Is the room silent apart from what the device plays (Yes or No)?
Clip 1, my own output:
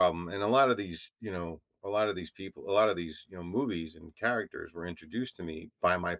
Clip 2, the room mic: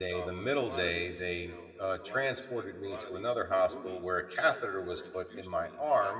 No